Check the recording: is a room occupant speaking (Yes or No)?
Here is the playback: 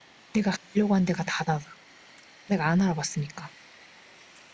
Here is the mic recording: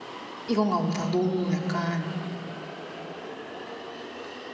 Yes